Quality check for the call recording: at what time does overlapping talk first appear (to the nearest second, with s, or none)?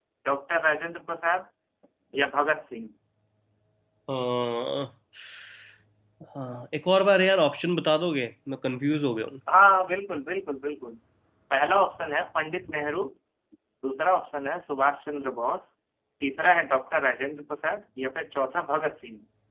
none